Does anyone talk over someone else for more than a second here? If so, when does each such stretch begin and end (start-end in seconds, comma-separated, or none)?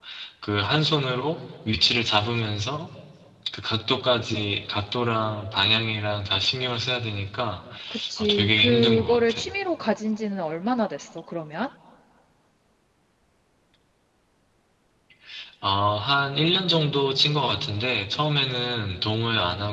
8.2-9.4